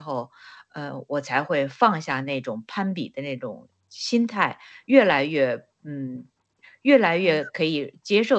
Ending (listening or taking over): listening